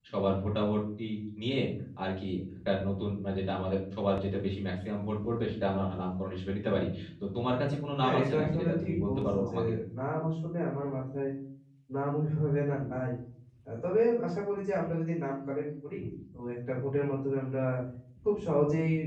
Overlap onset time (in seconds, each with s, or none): 8.0 s